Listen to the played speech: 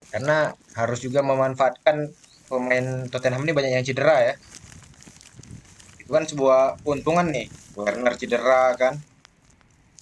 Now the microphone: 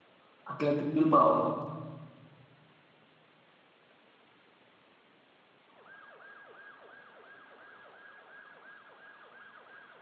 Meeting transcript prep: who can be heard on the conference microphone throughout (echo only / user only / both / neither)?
user only